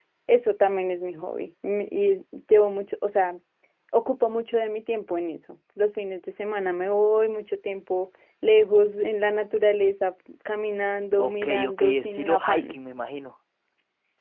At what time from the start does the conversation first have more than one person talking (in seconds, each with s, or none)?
11.2 s